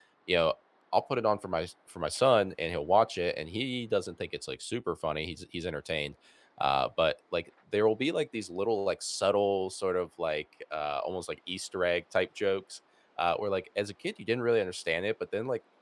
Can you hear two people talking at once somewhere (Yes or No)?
No